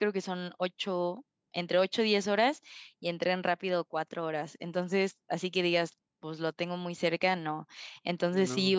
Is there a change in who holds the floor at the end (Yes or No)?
No